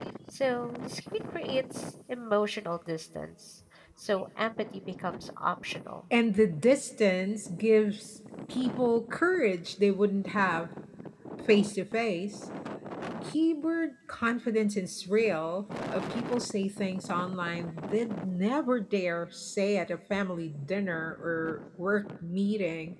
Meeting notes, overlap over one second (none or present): none